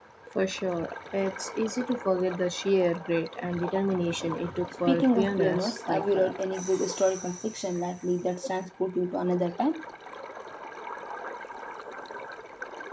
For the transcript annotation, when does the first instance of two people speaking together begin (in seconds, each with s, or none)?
4.9 s